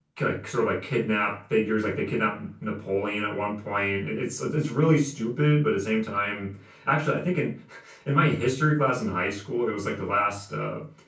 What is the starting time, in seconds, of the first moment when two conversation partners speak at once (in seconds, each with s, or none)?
none